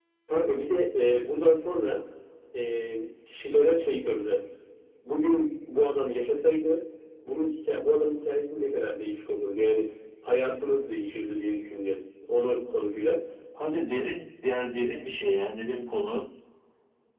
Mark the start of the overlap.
none

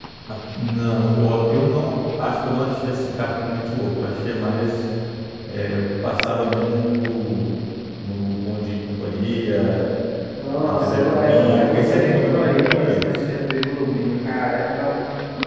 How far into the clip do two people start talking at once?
11 s

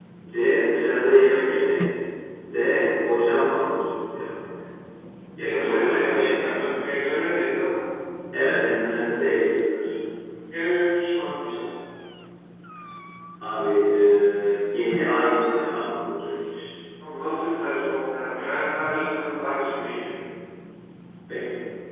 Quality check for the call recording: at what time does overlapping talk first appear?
5 s

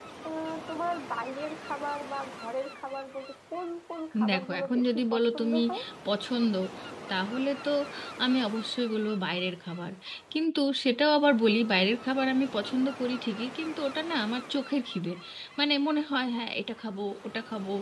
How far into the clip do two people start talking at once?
4 s

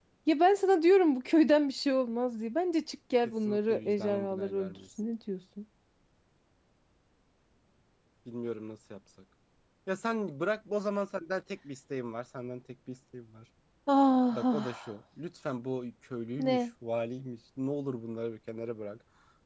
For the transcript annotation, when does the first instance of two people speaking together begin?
3 s

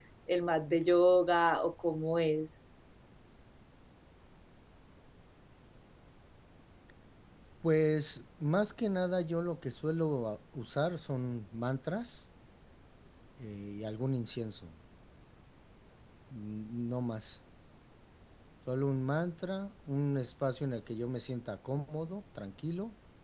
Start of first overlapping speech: none

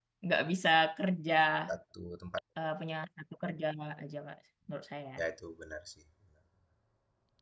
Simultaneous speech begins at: none

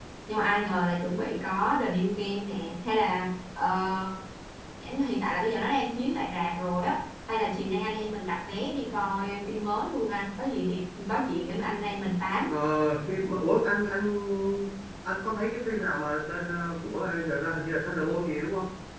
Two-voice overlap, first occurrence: none

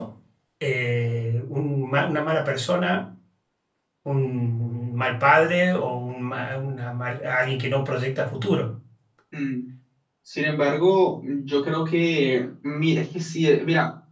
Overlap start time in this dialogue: none

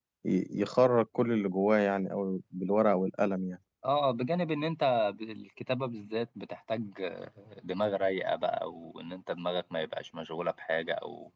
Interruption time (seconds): none

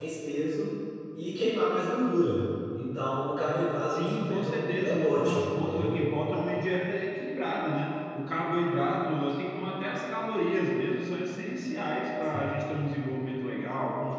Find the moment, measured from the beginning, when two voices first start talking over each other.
4 s

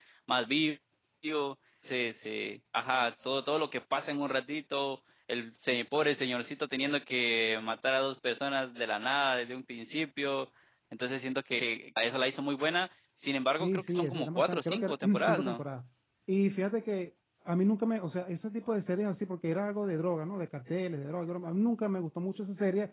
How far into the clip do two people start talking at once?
14 s

